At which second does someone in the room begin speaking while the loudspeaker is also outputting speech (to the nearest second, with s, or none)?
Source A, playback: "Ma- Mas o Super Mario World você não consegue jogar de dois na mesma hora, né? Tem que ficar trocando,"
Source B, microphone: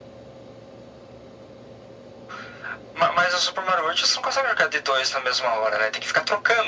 none